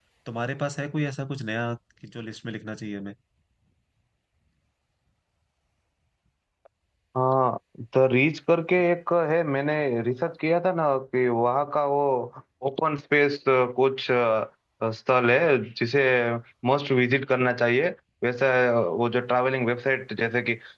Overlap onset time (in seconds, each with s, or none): none